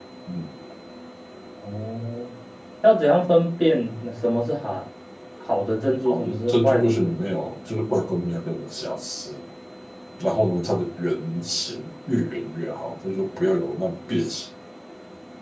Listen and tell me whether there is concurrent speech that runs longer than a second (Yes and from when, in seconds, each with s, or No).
Yes, from 6.0 s